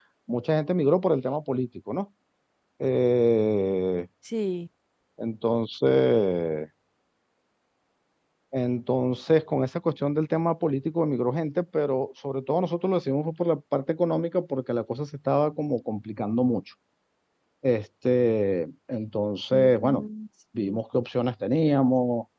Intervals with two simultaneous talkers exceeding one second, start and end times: none

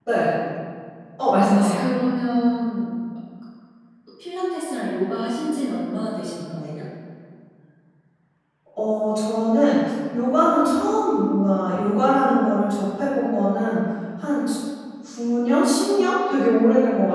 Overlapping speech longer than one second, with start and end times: none

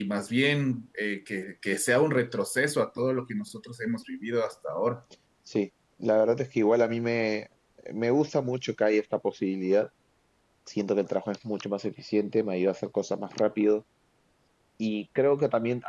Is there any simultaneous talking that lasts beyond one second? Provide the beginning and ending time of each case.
none

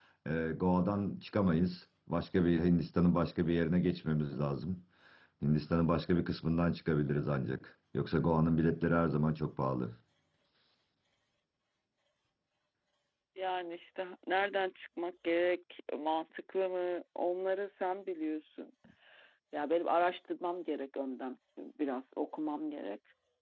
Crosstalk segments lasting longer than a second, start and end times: none

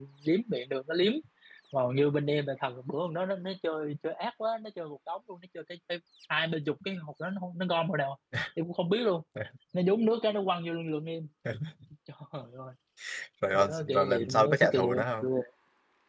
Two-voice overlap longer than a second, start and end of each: 13.5-15.3

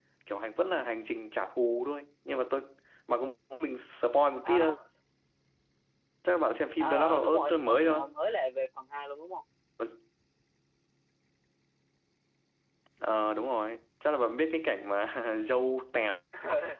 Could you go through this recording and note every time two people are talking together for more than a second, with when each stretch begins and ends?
6.8-8.0

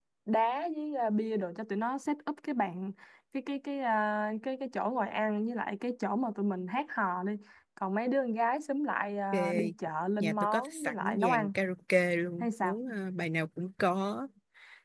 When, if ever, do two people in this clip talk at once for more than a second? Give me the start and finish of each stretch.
10.2-11.5

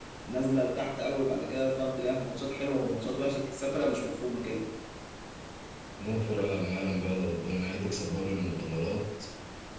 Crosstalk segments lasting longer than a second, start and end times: none

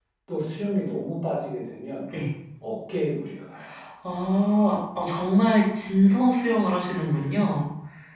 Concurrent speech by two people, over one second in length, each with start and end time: none

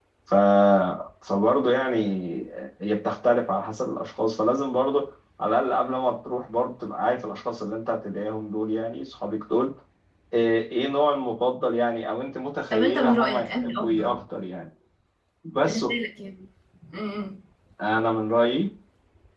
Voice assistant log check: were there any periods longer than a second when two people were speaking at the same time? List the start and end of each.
12.7-14.2

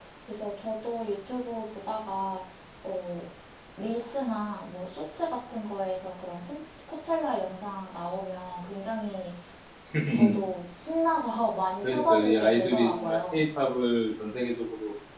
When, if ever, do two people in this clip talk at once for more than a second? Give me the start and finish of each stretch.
11.8-13.4

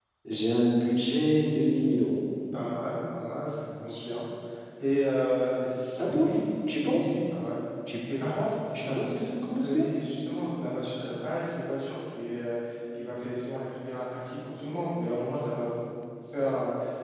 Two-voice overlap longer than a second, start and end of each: none

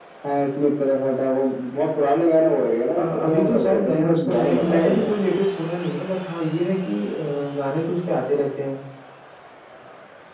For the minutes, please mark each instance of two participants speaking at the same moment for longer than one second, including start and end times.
3.0-5.1

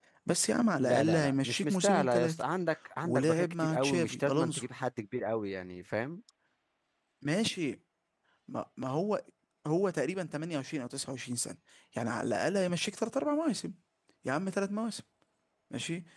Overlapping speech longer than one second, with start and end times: 0.8-2.4, 3.0-4.6

